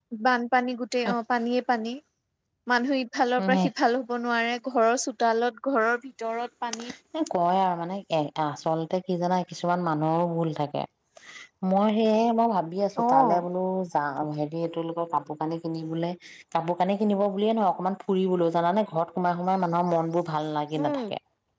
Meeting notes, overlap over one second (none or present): none